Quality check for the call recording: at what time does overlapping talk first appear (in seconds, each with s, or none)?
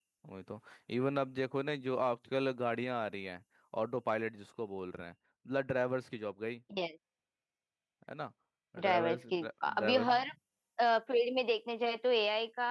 8.8 s